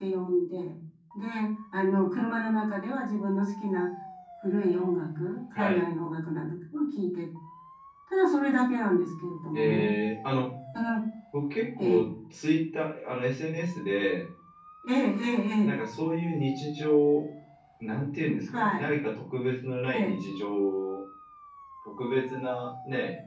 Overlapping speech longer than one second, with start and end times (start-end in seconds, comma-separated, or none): none